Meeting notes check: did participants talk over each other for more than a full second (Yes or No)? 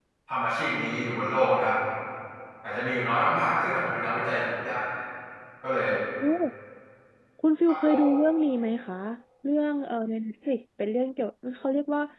No